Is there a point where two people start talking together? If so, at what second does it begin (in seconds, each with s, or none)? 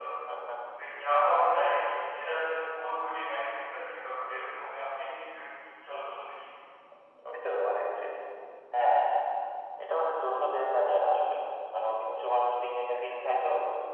none